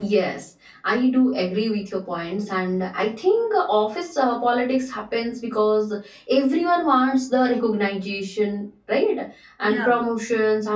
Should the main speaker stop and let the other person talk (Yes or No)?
No